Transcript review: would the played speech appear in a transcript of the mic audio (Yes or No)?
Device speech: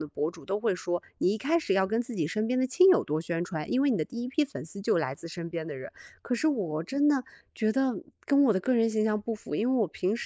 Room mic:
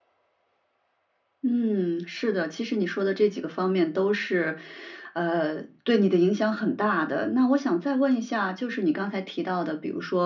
No